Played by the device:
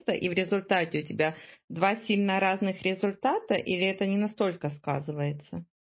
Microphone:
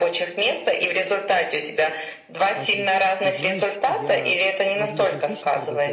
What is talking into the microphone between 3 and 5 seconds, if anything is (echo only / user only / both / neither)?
both